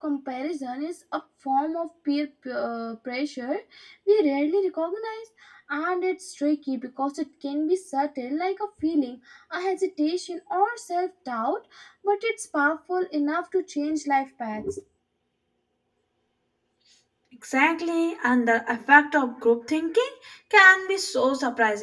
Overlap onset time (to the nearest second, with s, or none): none